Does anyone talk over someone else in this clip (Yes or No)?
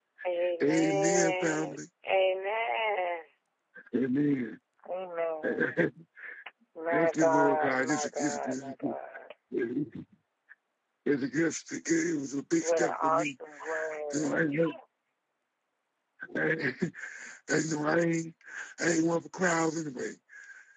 Yes